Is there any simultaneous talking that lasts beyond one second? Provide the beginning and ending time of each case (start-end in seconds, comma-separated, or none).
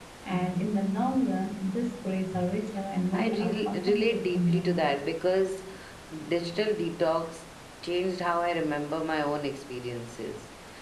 3.1-4.9